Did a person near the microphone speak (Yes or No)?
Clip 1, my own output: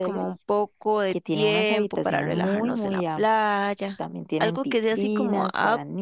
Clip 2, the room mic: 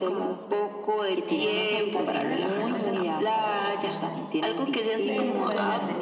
Yes